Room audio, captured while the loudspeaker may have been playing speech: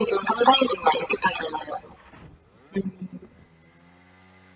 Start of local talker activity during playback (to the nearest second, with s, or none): none